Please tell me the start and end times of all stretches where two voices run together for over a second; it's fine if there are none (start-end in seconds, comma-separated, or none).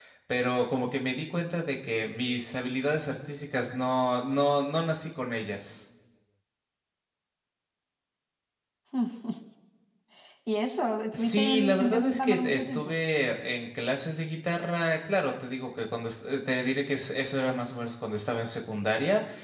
11.1-12.9